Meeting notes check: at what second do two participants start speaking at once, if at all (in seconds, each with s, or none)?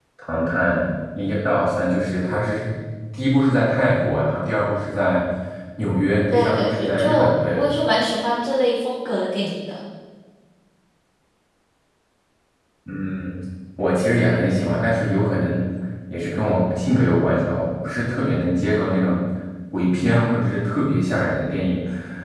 6.3 s